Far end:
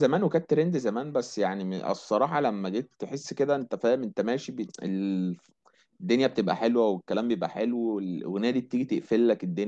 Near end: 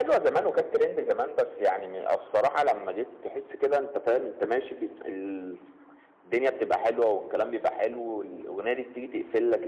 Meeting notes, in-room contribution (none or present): none